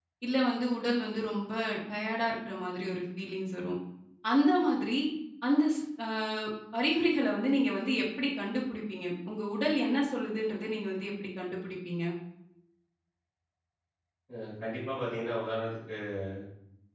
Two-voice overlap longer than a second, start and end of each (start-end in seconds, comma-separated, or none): none